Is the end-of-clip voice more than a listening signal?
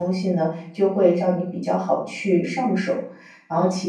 No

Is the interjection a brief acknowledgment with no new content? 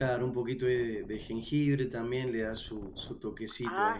No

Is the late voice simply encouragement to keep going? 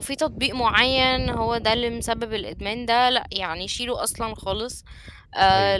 Yes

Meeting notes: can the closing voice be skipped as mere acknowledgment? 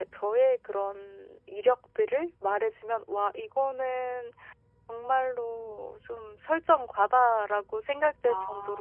Yes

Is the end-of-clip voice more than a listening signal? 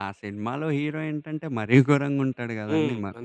Yes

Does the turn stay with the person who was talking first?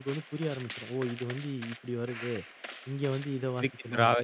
No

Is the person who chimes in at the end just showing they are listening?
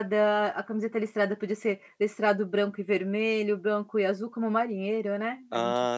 No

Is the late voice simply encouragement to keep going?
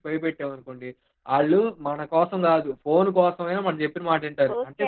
No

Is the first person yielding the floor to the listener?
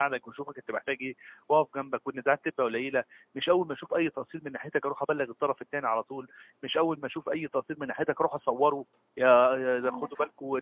No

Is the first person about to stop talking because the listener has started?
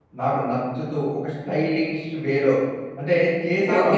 Yes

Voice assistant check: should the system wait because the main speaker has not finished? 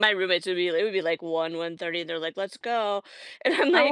No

